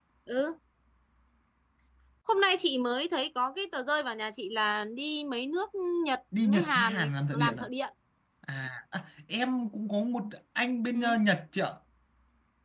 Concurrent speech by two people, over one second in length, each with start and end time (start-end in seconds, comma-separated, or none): 6.4-7.7